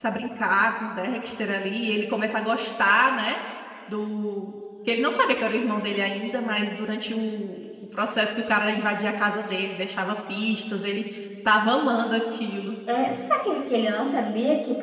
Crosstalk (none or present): none